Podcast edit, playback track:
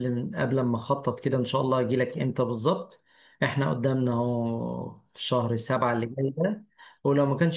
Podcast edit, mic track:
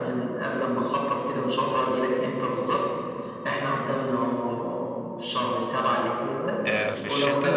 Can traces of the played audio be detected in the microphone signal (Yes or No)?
Yes